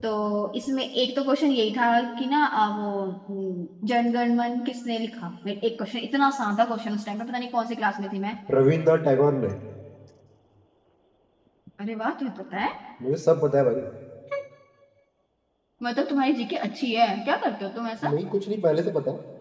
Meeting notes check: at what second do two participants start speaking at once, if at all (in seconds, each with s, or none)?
none